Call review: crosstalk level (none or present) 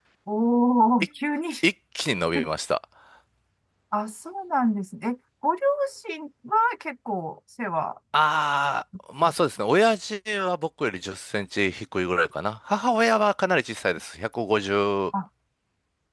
none